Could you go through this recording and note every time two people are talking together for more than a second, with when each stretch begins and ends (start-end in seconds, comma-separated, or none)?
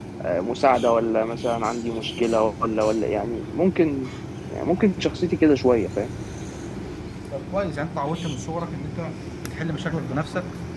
none